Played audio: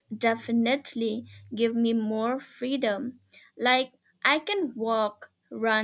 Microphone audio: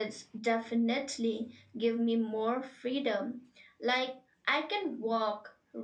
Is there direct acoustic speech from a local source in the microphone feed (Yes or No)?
No